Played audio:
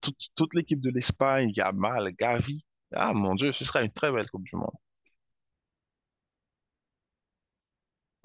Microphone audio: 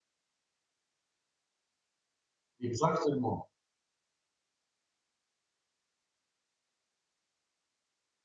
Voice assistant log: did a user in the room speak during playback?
Yes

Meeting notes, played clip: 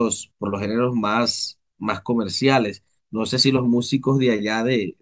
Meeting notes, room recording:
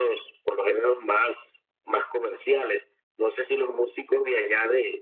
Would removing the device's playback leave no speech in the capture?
Yes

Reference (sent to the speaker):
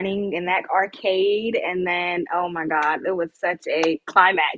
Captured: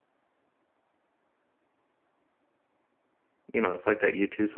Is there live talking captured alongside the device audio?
Yes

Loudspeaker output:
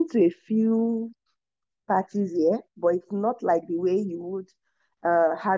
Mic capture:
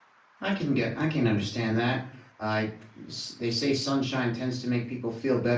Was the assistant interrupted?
Yes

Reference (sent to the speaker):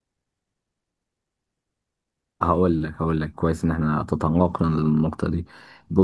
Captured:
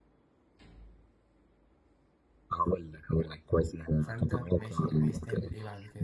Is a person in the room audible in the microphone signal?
Yes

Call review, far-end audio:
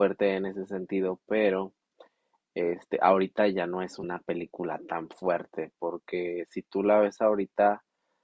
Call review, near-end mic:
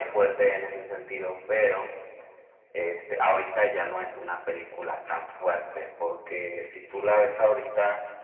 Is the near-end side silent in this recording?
Yes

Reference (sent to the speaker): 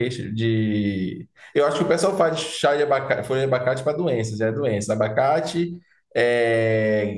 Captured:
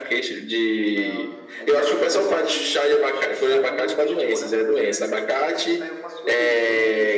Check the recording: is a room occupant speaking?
Yes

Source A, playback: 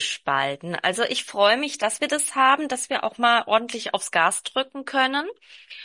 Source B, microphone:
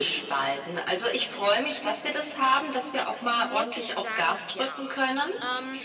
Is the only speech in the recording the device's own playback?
No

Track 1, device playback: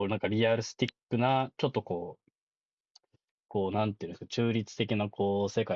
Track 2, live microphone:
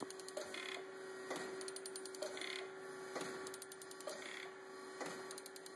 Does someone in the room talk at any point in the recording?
No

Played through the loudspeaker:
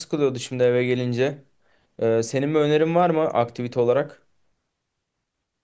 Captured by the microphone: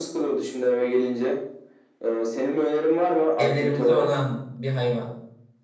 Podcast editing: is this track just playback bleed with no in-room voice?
No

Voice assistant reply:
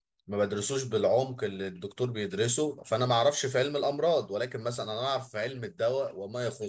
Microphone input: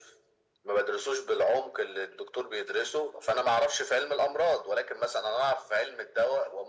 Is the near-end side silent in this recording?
Yes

